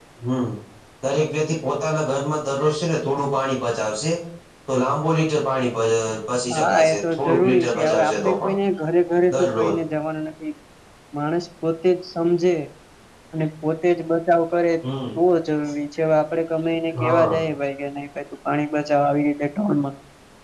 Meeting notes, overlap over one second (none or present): present